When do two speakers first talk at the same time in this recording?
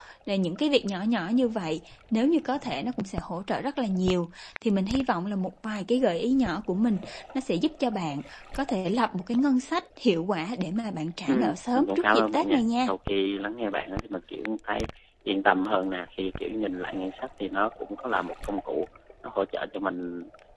11.3 s

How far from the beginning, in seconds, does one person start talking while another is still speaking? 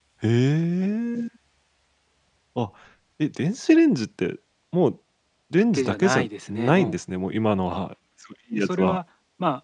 5.7 s

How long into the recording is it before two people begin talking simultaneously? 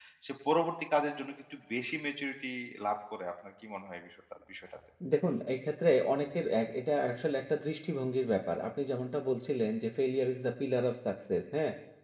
none

